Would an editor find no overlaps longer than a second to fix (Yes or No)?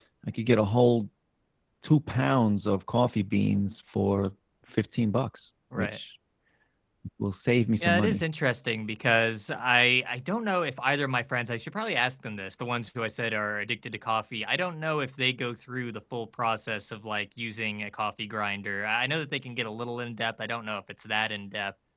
Yes